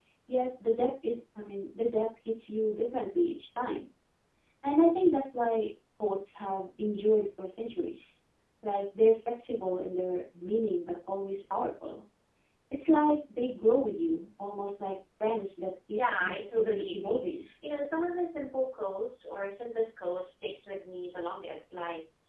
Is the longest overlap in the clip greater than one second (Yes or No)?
Yes